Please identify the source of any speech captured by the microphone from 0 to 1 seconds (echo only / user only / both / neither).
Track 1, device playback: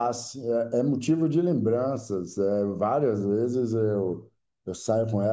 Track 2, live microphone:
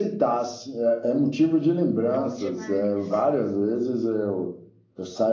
echo only